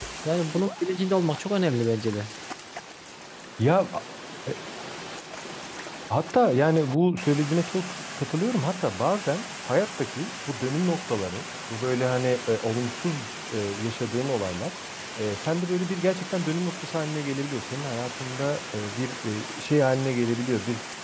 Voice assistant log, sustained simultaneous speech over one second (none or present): none